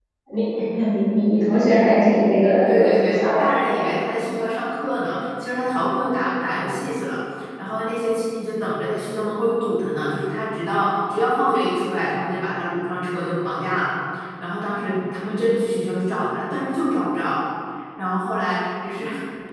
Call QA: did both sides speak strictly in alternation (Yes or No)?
No